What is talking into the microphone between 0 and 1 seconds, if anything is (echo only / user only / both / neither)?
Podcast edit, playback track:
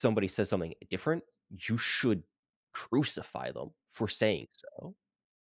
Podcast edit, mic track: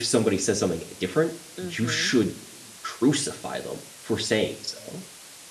echo only